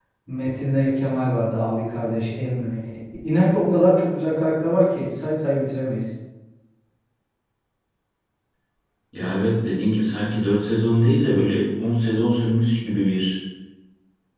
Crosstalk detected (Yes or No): No